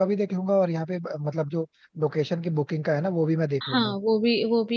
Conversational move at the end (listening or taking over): taking over